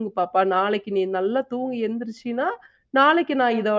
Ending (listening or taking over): listening